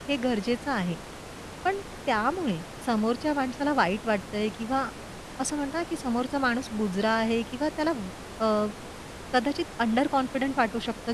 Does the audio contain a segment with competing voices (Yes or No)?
No